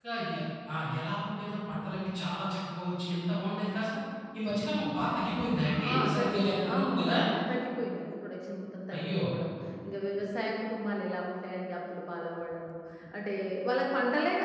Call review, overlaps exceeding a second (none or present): present